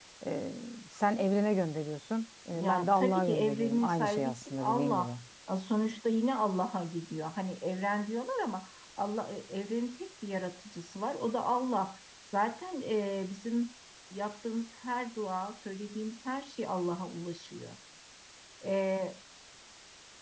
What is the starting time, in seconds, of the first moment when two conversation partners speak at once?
2.5 s

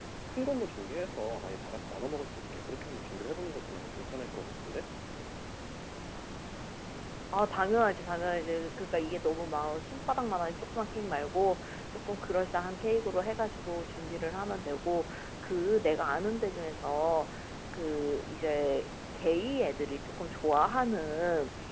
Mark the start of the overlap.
none

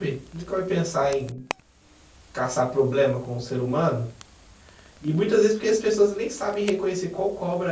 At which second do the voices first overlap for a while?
none

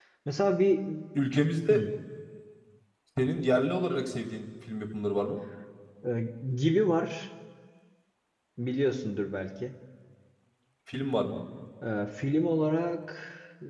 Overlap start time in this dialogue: none

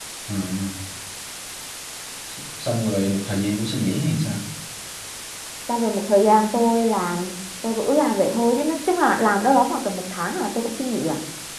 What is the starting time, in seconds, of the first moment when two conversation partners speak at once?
none

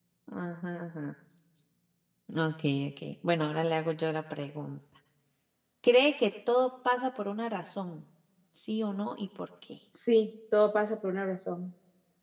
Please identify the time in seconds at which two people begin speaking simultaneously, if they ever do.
none

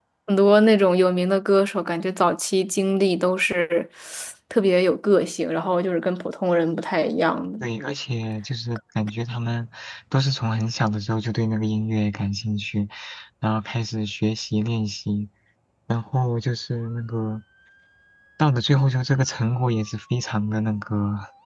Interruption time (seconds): none

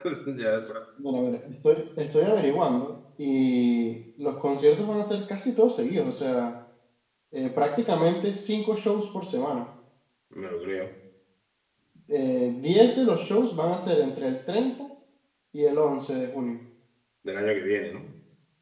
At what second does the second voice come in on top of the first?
none

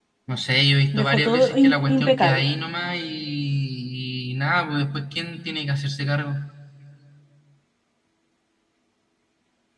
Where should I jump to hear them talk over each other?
0.9 s

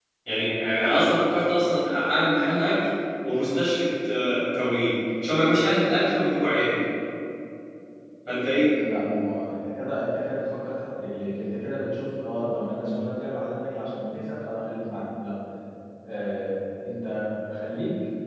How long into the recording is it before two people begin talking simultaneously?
none

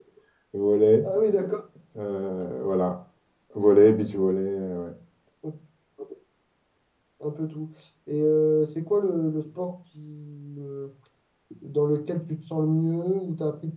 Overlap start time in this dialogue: none

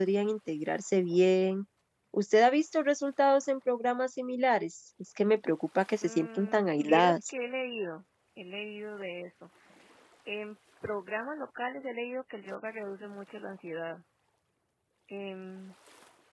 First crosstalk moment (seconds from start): 6.0 s

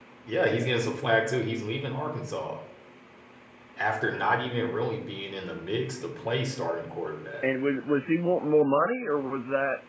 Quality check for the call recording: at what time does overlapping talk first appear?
none

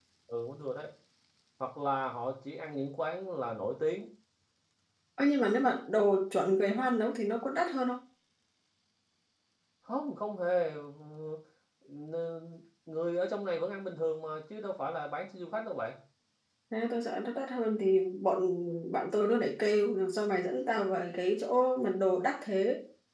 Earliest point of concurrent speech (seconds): none

